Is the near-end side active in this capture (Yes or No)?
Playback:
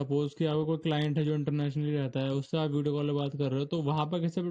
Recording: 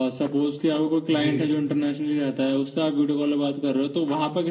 Yes